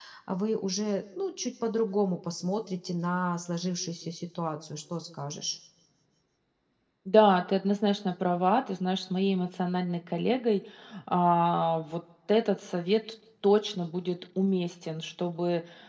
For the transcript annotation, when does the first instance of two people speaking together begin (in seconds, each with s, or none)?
none